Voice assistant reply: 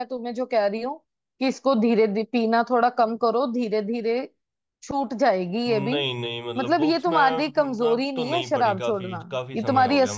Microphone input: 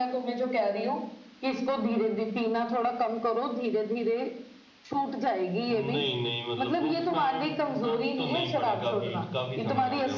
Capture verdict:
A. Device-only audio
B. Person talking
A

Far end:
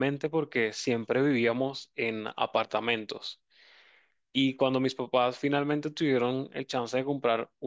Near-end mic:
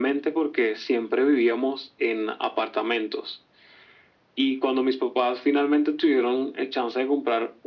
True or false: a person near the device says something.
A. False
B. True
A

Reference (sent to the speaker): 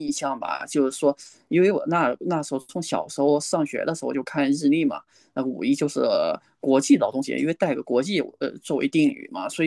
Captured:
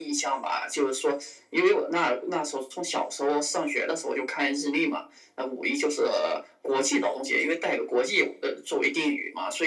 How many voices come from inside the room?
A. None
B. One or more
A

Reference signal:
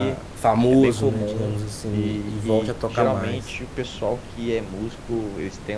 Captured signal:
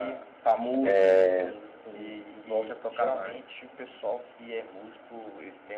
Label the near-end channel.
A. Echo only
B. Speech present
B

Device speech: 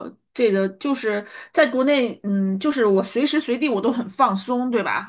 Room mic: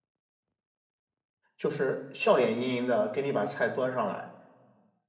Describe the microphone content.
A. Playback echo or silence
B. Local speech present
B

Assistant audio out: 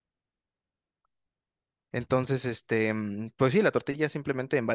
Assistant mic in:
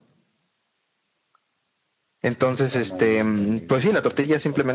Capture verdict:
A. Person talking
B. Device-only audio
A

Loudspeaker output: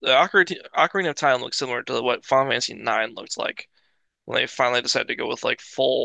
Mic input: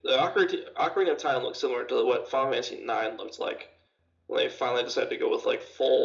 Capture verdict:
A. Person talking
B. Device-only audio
B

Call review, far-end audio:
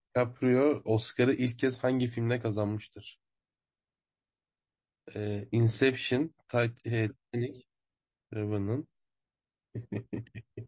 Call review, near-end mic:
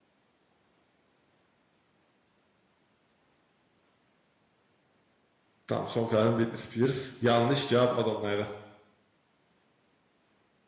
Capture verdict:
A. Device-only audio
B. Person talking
B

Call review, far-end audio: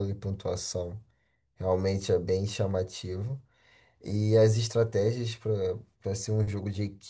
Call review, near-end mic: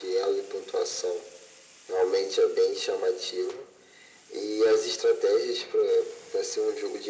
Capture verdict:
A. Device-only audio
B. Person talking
A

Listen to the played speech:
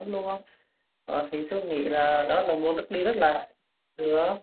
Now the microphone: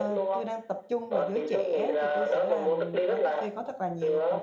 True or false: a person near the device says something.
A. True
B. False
A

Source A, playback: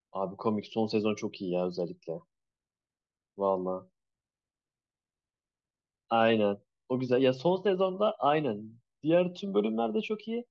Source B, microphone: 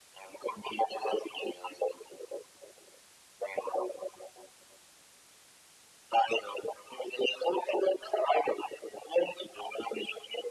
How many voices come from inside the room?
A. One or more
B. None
B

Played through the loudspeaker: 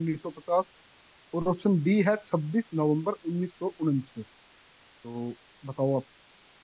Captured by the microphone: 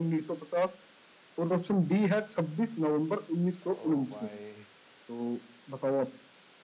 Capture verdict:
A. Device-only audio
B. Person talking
B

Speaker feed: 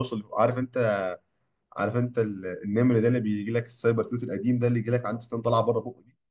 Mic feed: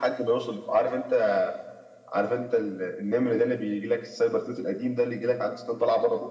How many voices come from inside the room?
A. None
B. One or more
A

